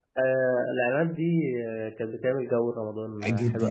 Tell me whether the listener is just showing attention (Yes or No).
No